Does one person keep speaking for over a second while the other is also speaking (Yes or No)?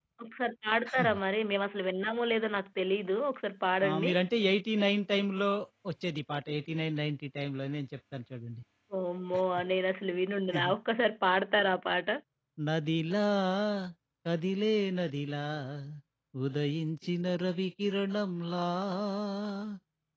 No